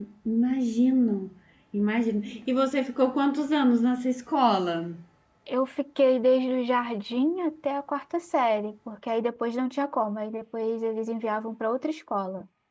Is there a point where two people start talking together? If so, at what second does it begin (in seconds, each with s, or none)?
none